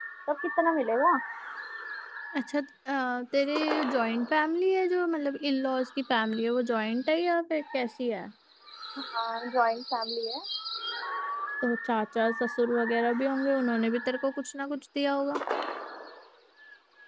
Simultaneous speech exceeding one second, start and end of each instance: none

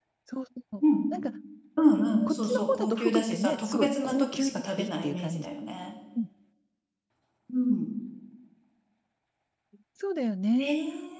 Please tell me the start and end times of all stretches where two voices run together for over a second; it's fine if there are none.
2.3-5.5

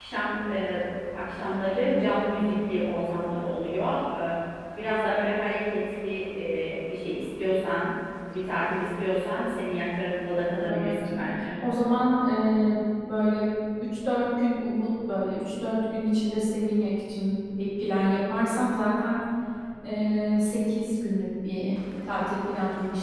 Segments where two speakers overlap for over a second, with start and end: none

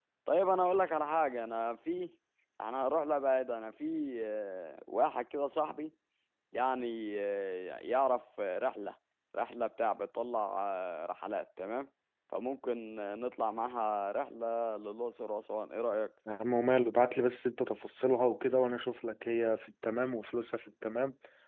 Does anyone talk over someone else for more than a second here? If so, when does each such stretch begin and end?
none

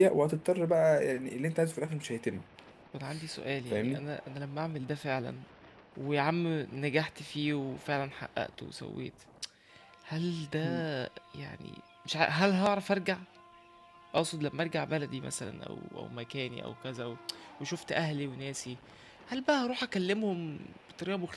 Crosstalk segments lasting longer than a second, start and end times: none

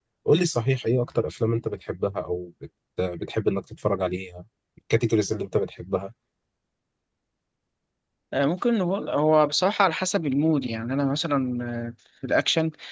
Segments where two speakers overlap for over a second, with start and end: none

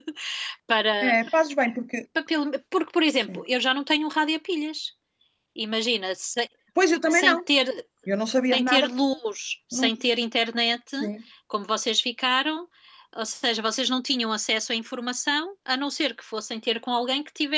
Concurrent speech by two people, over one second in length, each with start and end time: none

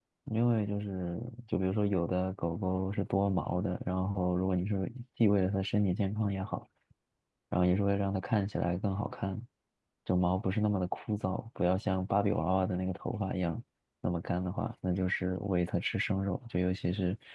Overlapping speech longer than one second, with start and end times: none

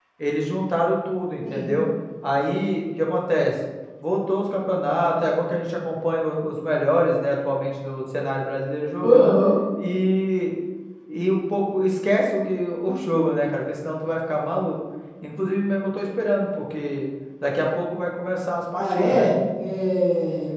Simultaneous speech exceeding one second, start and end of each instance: none

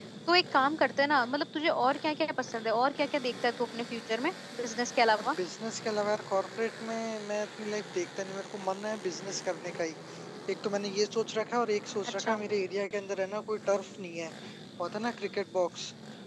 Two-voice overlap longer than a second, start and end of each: none

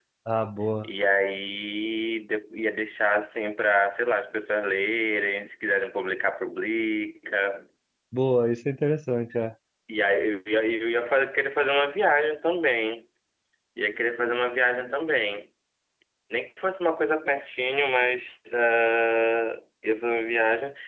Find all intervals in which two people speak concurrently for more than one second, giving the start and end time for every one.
none

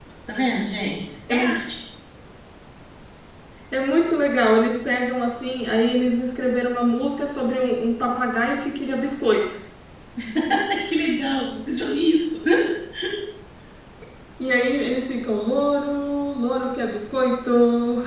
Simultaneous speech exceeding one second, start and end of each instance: none

